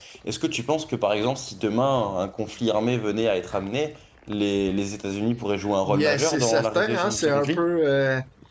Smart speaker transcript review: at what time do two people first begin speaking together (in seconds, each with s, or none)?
5.8 s